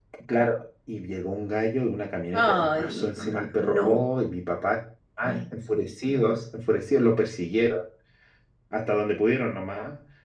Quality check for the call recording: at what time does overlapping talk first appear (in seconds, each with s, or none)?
2.3 s